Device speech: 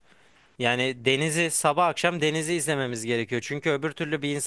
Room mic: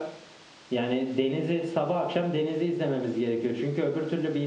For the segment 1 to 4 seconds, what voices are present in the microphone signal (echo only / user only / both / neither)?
echo only